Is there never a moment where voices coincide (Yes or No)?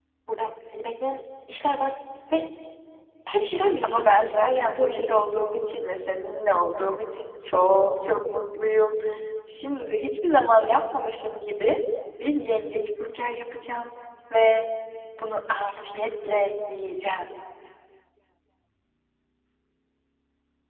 No